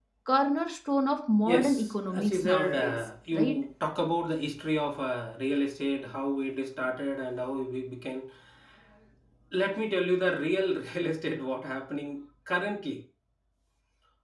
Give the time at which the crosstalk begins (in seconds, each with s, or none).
1.5 s